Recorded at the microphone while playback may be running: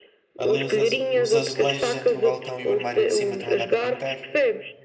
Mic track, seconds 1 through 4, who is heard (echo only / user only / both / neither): both